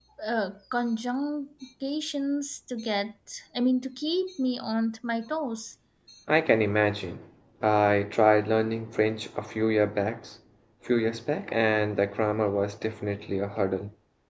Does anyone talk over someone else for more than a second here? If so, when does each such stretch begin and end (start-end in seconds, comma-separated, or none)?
none